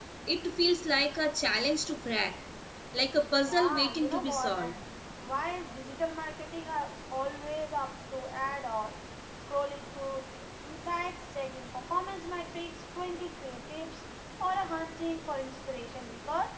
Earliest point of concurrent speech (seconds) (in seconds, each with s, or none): 3.5 s